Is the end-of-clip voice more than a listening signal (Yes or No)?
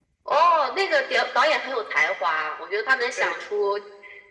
No